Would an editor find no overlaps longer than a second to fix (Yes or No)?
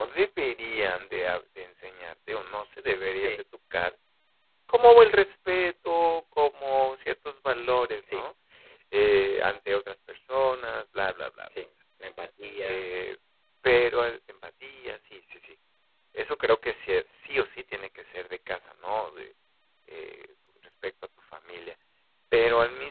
Yes